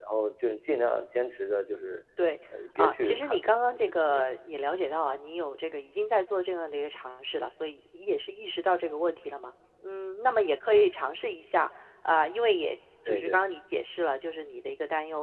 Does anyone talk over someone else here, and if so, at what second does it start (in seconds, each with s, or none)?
2.8 s